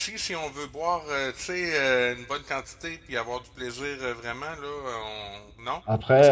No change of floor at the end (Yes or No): Yes